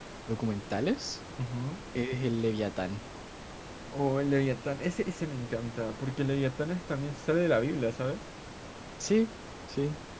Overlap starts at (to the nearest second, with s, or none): none